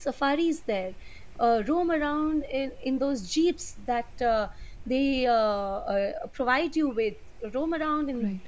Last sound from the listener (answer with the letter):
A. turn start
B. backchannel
A